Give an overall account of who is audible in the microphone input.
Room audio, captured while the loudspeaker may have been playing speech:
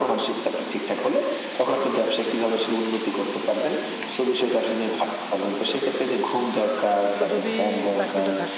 both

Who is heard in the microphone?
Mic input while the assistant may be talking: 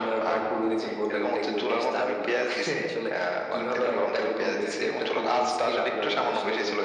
echo only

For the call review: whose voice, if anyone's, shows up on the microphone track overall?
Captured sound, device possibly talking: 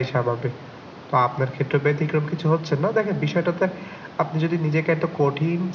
echo only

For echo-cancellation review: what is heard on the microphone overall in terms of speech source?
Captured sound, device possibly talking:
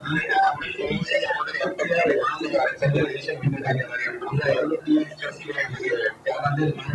echo only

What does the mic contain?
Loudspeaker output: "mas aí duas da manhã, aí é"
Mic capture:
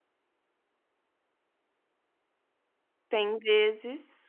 user only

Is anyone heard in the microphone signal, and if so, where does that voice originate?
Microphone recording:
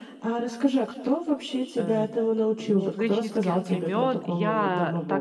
both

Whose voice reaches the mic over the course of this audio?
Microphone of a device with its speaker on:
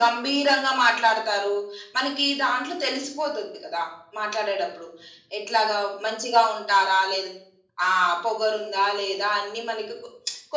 echo only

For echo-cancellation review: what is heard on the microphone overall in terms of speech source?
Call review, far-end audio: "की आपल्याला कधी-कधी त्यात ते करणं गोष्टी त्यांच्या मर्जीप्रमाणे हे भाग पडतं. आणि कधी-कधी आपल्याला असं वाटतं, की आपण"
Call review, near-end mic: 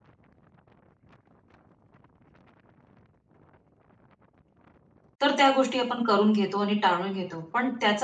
user only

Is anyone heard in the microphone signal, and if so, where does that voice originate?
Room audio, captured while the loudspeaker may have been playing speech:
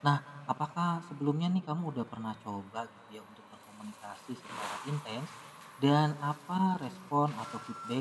user only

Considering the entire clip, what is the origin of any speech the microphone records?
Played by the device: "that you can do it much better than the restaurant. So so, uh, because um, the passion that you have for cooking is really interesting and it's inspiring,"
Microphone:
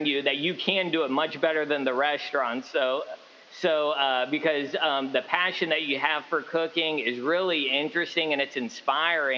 echo only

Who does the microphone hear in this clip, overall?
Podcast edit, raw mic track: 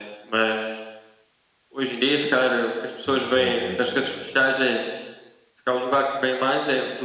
both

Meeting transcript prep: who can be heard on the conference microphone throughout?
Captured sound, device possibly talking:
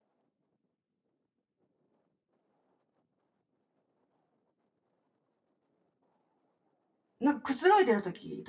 user only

